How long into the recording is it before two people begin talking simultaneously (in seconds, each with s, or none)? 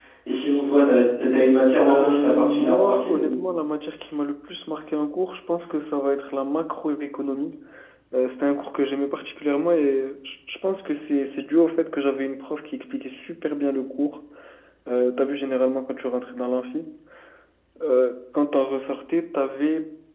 1.8 s